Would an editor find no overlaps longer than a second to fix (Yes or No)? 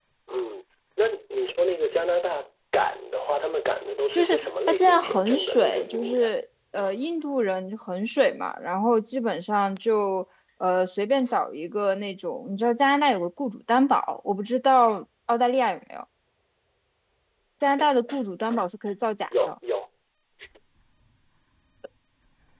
No